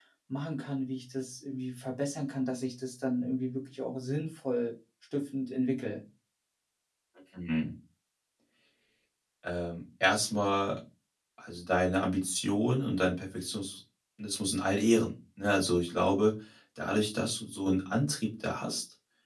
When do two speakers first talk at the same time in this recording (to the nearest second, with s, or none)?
none